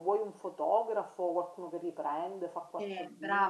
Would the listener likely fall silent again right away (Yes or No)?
No